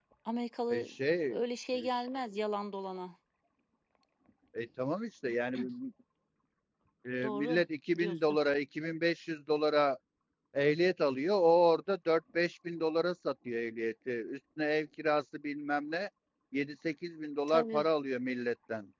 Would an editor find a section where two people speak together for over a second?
No

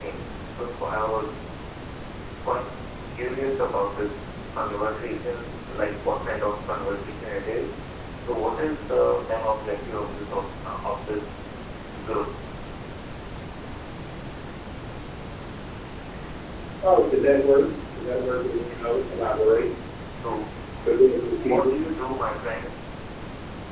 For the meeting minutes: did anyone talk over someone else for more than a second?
No

